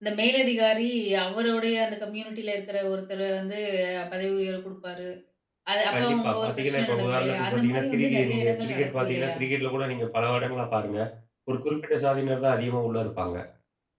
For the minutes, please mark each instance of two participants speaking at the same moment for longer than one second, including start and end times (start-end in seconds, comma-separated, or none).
5.9-9.3